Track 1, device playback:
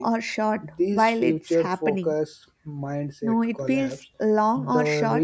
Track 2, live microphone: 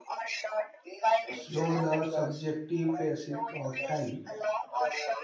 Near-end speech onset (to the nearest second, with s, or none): 1 s